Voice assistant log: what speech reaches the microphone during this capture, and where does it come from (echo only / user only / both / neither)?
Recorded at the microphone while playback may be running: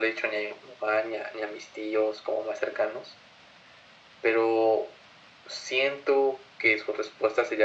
echo only